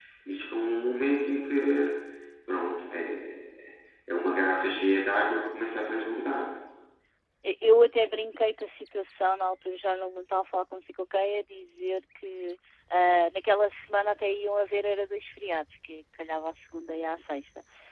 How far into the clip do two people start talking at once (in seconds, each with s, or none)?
none